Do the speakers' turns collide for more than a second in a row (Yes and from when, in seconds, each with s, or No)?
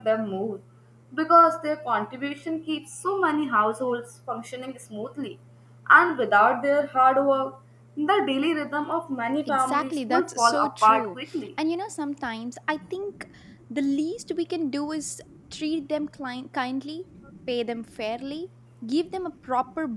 Yes, from 9.5 s